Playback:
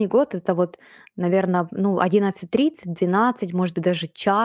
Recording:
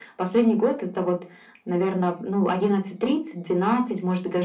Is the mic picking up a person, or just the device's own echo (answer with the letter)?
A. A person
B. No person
B